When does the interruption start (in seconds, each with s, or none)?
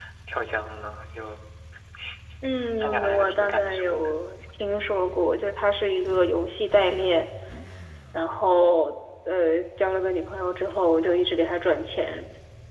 2.8 s